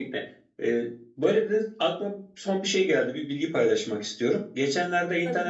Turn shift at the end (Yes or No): No